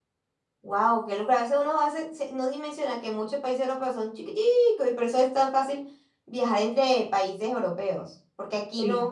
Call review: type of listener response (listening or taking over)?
listening